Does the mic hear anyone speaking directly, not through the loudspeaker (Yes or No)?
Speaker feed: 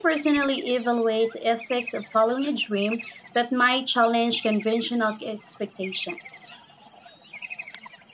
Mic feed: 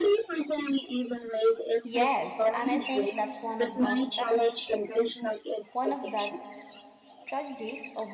Yes